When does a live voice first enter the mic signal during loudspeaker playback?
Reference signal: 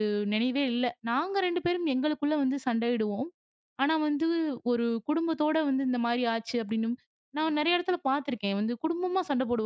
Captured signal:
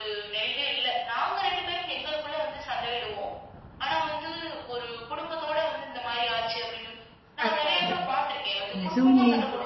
7.4 s

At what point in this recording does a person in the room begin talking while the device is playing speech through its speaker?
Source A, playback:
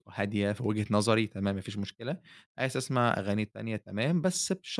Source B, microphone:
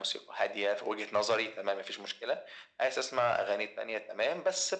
none

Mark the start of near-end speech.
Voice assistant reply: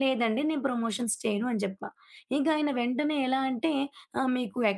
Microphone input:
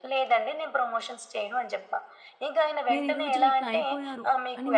2.9 s

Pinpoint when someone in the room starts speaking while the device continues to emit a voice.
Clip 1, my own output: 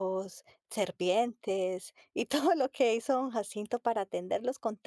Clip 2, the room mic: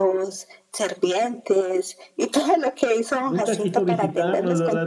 3.2 s

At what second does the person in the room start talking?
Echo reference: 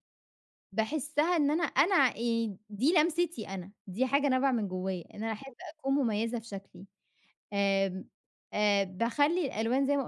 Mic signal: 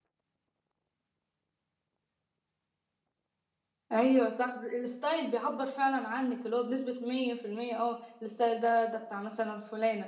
3.9 s

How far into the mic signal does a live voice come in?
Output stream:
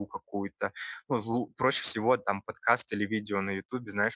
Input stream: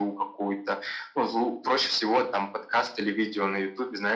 none

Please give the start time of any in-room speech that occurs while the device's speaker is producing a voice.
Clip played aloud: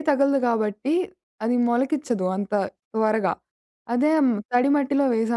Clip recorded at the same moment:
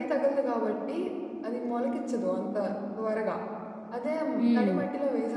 4.4 s

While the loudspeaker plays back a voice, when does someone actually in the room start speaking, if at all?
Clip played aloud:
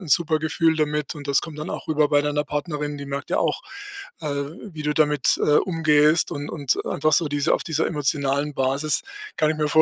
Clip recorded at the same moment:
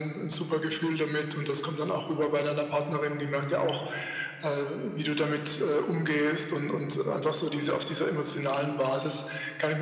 none

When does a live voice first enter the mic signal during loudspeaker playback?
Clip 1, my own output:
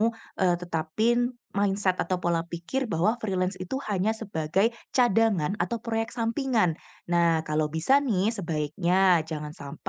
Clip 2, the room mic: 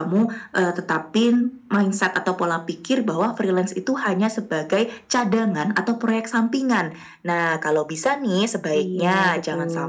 8.8 s

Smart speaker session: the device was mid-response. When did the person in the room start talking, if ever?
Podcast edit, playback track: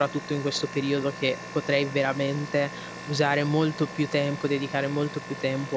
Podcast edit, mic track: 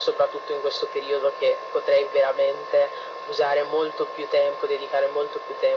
none

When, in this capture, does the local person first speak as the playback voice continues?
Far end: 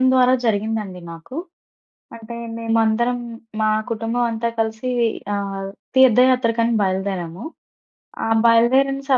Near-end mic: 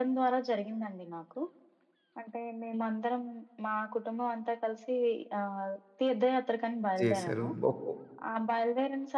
7.0 s

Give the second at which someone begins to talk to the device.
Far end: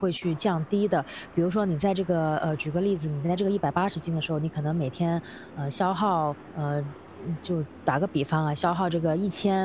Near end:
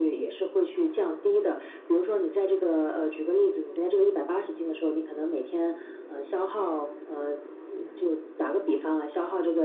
none

